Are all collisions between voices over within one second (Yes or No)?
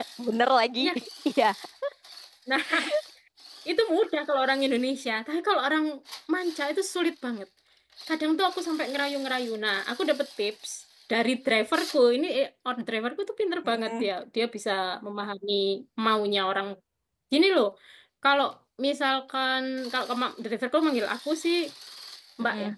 Yes